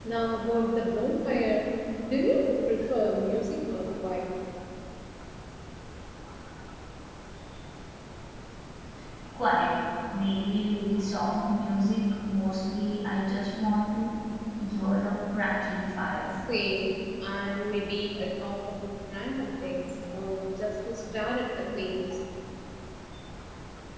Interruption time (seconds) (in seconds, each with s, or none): none